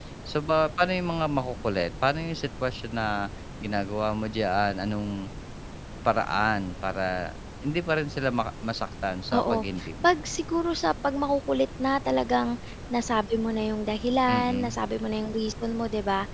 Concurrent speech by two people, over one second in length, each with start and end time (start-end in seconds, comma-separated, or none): none